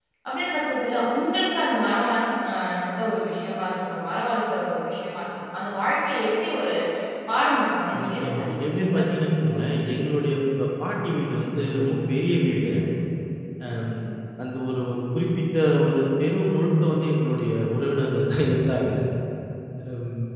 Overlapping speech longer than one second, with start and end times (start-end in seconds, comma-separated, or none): 8.1-9.5